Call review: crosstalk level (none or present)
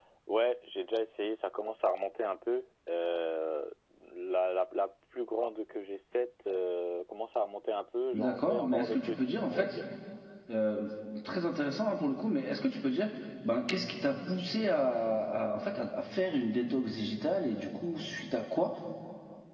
present